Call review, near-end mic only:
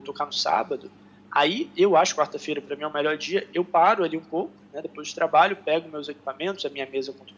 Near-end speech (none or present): none